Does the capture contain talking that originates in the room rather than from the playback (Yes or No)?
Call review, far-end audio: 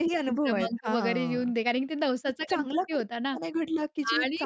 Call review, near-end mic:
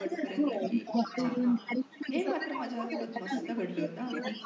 Yes